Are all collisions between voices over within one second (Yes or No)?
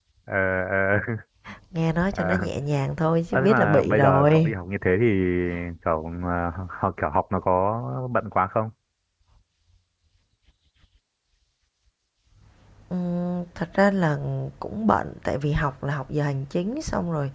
No